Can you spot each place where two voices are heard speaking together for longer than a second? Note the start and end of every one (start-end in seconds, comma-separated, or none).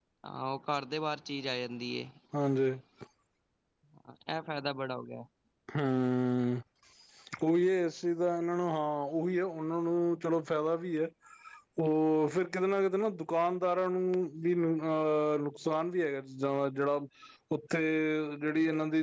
none